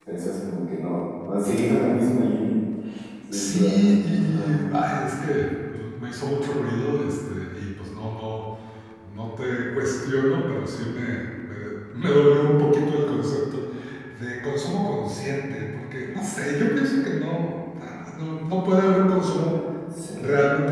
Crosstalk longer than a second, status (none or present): present